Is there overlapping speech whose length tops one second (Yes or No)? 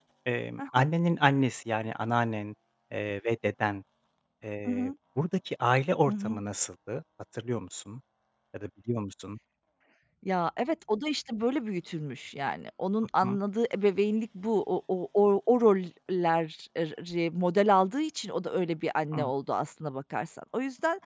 No